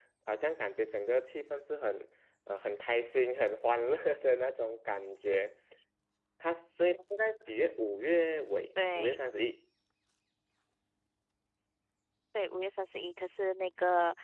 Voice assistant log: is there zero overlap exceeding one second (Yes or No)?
Yes